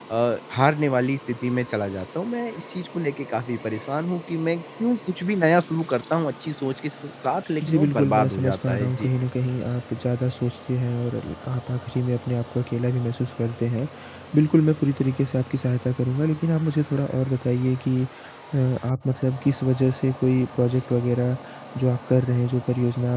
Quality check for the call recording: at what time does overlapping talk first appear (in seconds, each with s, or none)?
7.6 s